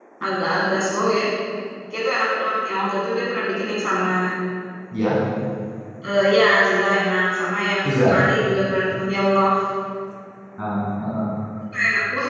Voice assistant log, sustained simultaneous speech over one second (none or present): none